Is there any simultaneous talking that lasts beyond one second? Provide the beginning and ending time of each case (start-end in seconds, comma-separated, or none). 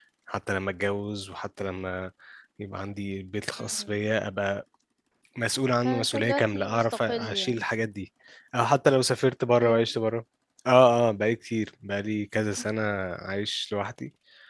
5.8-7.6